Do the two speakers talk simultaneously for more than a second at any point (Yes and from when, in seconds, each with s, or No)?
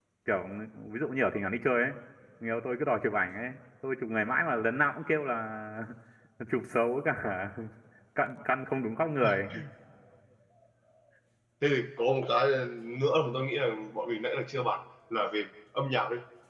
No